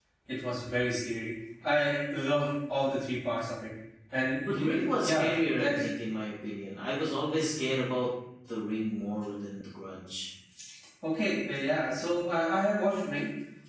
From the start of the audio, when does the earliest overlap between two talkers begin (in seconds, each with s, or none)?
4.4 s